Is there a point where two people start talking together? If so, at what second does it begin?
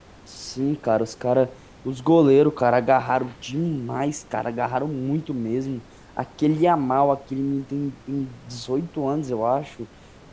none

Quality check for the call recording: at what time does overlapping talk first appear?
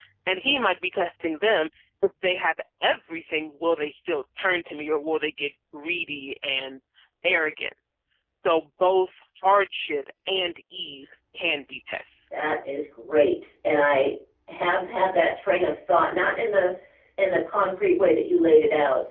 none

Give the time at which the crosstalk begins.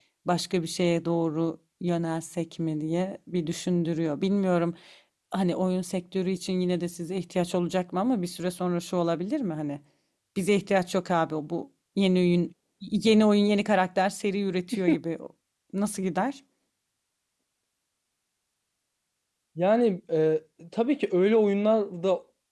none

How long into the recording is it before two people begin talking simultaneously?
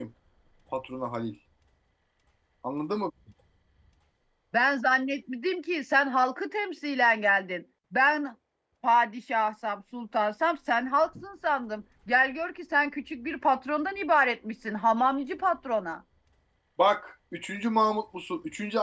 none

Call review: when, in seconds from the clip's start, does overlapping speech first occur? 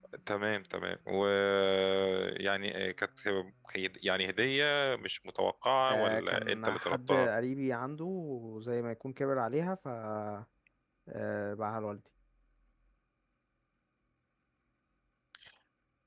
6 s

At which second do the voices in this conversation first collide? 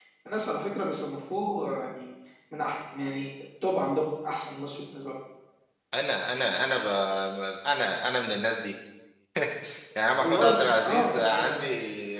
10 s

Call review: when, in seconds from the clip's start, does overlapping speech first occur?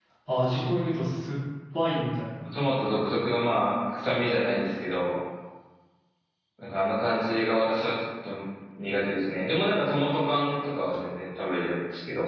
none

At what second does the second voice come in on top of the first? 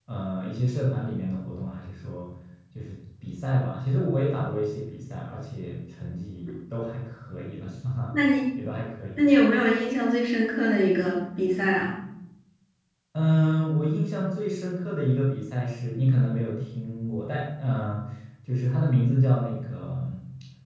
none

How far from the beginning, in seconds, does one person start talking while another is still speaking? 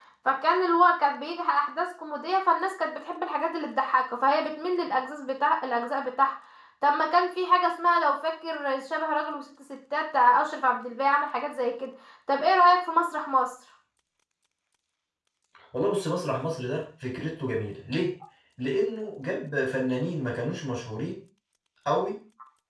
none

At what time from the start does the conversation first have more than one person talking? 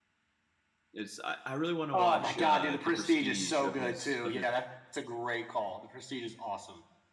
2 s

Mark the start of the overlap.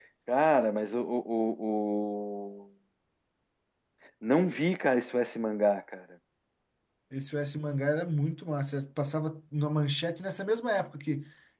none

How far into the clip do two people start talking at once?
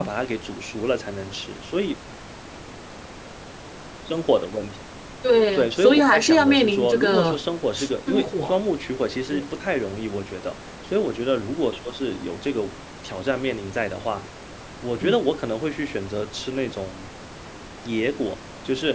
6 s

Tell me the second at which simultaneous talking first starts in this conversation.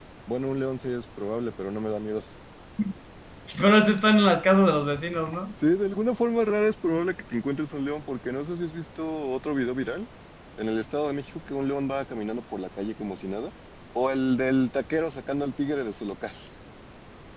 none

